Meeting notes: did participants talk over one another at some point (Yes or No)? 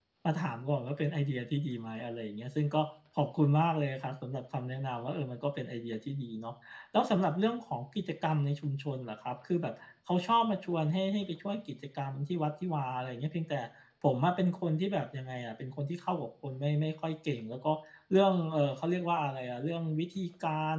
No